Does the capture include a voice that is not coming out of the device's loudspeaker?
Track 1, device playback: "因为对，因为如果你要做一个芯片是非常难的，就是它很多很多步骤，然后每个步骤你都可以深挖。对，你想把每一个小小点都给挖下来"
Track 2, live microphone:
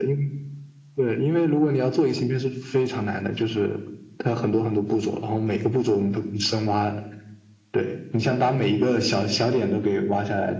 No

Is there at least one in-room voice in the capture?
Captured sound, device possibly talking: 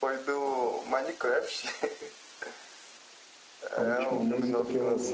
Yes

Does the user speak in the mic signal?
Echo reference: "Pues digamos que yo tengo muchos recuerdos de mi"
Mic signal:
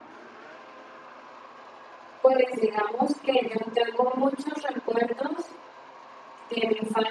No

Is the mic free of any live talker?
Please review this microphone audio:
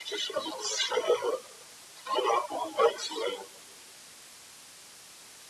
Yes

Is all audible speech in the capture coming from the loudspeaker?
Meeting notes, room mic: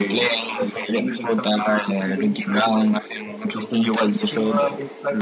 Yes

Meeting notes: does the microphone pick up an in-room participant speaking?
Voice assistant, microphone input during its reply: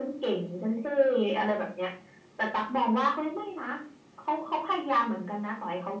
No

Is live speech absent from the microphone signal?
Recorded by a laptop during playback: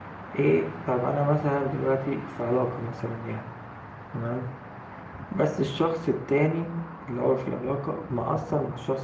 No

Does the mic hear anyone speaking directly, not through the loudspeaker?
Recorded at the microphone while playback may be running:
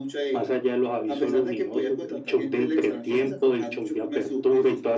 No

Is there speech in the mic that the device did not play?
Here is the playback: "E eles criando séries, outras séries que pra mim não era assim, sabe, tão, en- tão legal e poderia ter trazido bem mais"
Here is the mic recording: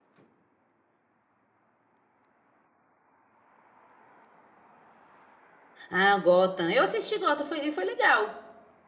Yes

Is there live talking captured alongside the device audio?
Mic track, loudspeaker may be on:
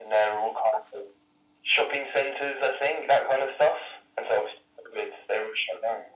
No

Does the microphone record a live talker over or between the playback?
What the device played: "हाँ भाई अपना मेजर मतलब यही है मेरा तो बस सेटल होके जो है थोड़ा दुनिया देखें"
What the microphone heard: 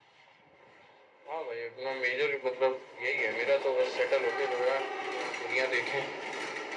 No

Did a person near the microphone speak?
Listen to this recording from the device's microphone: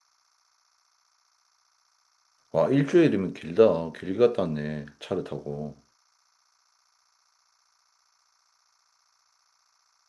Yes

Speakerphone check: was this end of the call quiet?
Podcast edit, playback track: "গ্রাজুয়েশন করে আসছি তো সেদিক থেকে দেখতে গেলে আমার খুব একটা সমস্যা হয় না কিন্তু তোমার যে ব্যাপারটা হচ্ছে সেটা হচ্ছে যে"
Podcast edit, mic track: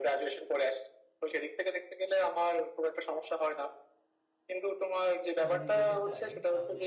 No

